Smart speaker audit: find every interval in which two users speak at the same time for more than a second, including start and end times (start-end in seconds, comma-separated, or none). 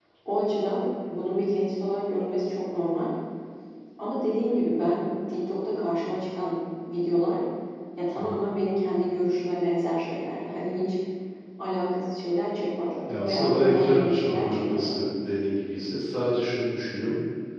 13.1-14.9